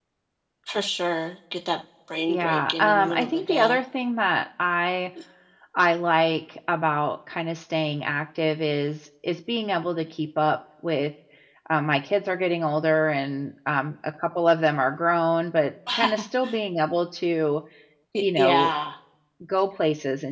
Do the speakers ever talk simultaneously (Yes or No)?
Yes